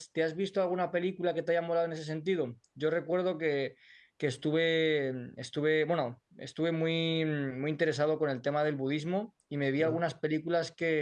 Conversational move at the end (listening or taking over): listening